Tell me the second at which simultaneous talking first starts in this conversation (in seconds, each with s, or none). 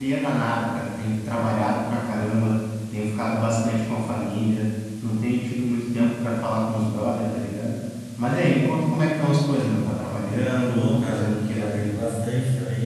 10.6 s